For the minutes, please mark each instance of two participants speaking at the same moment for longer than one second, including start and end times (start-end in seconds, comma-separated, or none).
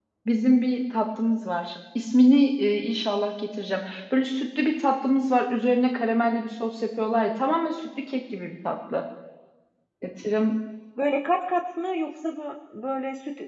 none